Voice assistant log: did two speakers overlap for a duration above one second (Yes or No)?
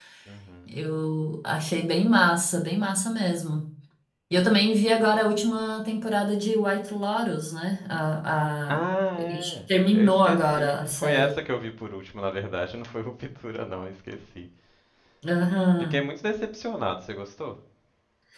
Yes